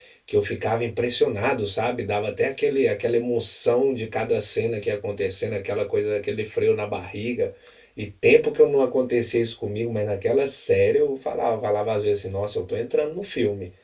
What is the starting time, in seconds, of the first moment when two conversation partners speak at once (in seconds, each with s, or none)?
none